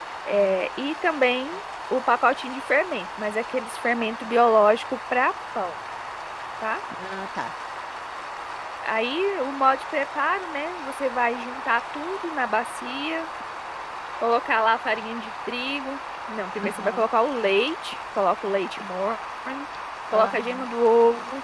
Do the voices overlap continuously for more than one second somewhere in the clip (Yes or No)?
No